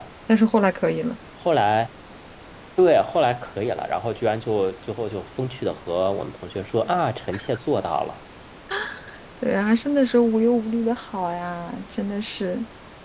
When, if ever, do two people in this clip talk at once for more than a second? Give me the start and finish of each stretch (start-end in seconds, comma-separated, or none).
none